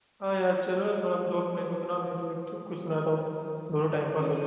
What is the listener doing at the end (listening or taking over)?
taking over